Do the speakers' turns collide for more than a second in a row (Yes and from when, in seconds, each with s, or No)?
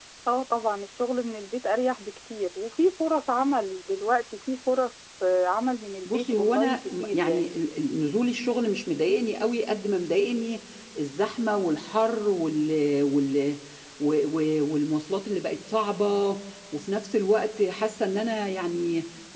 Yes, from 6.0 s